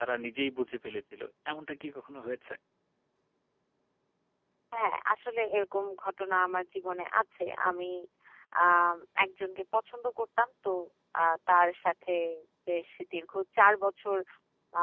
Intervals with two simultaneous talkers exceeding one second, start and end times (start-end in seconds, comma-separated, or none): none